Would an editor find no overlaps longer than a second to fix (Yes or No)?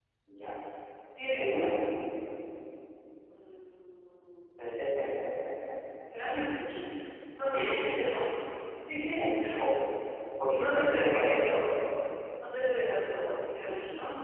No